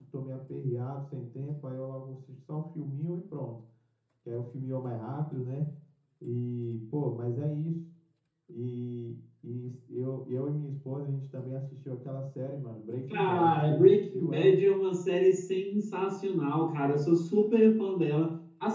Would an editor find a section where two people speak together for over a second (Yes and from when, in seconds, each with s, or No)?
Yes, from 13.1 s